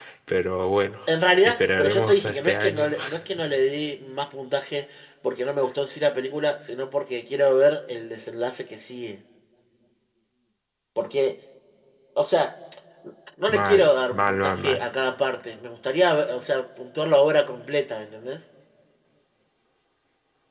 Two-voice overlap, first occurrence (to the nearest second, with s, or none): 1 s